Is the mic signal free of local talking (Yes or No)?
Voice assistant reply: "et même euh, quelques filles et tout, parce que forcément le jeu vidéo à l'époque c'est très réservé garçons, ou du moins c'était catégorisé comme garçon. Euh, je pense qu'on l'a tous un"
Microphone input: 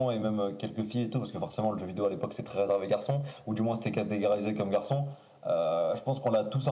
Yes